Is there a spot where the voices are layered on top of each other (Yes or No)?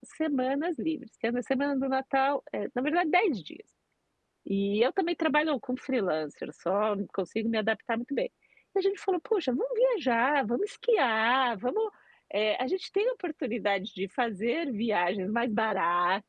No